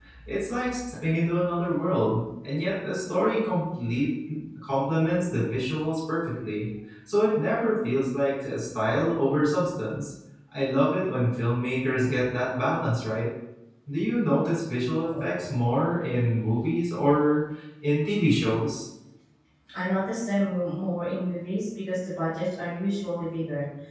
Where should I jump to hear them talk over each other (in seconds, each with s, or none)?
none